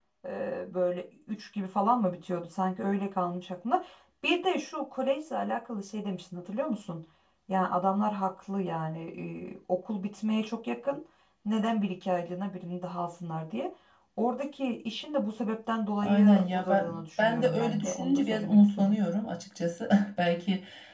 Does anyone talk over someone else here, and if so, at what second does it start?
16.0 s

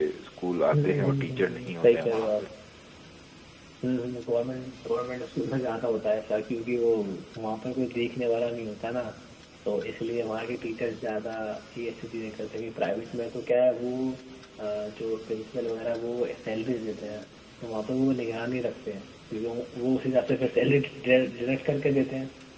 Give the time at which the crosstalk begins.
0.7 s

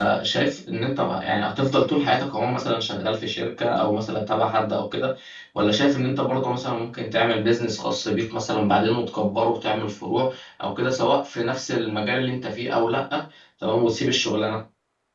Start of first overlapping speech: none

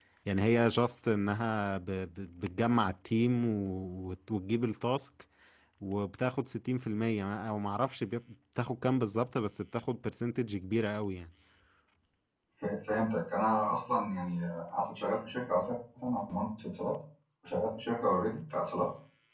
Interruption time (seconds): none

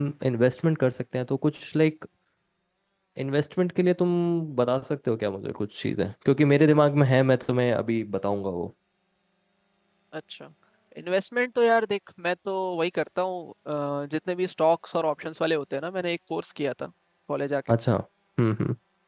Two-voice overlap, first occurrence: none

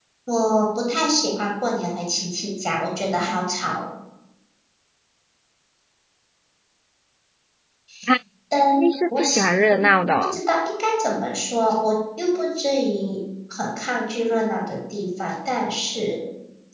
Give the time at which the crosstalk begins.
8.7 s

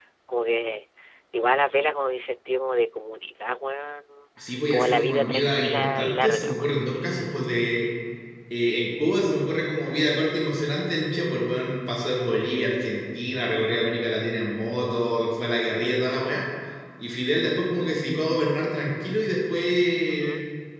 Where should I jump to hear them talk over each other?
4.7 s

